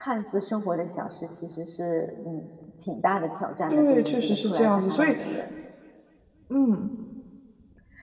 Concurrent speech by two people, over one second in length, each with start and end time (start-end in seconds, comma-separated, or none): 3.7-5.2